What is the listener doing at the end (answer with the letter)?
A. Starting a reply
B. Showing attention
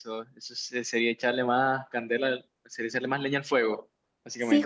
A